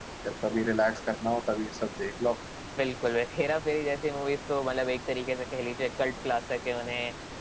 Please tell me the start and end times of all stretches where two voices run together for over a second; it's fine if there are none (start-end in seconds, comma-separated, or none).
none